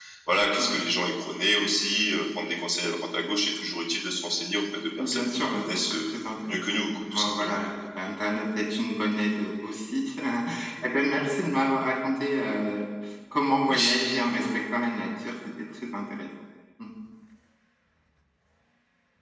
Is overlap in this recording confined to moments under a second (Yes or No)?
No